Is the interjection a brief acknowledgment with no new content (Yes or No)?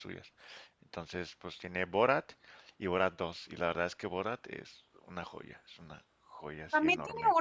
No